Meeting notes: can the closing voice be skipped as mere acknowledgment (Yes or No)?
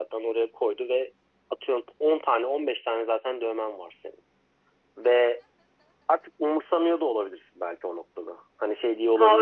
No